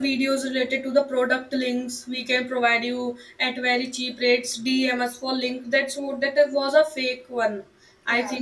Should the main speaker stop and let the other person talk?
No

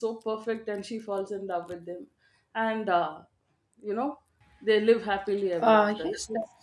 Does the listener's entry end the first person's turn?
Yes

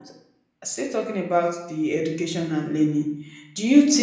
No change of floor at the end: Yes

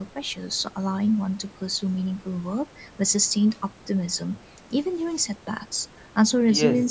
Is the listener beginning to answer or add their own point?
Yes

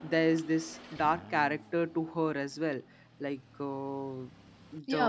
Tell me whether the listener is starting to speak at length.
Yes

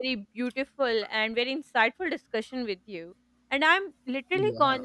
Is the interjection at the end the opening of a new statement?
No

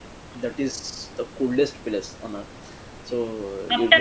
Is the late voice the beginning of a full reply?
Yes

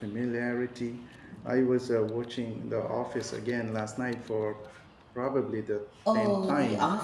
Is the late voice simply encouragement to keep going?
No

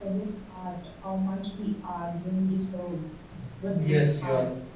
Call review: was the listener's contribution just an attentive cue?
No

